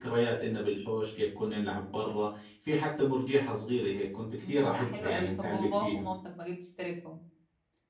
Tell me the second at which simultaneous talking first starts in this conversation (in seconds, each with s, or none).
4.4 s